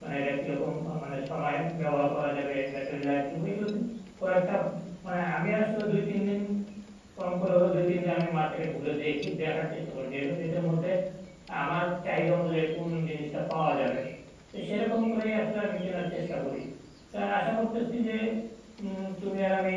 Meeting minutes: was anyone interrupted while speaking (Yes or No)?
No